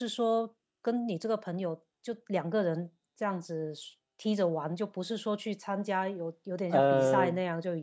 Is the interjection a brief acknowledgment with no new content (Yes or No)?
Yes